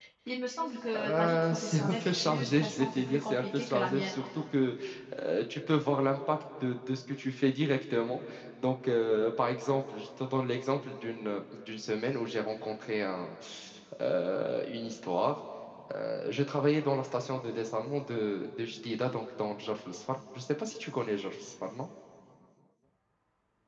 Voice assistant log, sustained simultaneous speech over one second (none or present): present